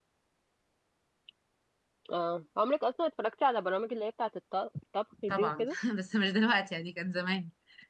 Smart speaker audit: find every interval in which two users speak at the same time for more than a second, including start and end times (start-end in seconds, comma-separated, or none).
none